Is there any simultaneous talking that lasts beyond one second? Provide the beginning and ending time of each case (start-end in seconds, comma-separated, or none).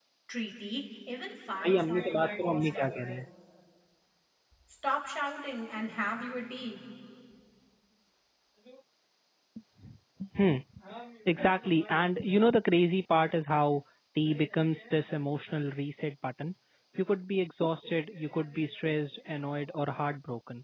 1.6-3.0